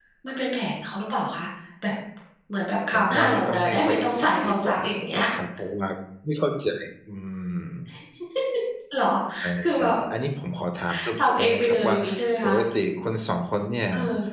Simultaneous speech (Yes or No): Yes